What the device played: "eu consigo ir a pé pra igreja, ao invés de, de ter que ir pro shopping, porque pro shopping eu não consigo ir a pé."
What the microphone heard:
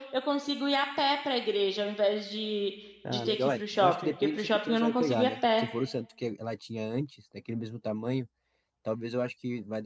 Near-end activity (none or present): present